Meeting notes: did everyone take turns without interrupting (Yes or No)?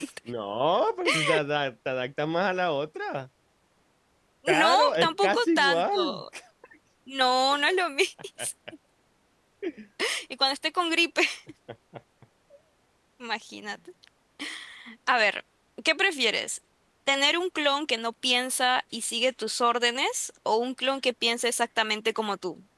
No